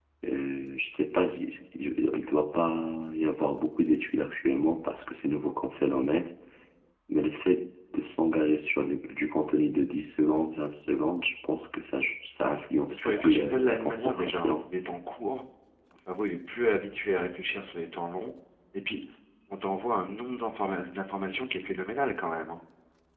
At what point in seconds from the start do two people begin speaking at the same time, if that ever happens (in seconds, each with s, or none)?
12.9 s